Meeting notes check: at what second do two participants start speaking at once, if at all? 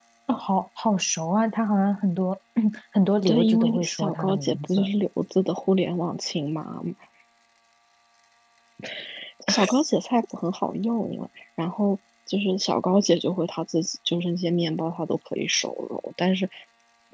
3 s

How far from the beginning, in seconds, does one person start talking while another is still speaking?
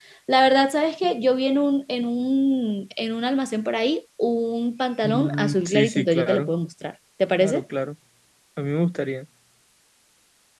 5 s

